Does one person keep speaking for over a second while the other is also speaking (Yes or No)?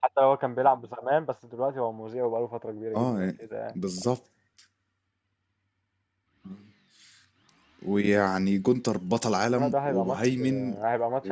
Yes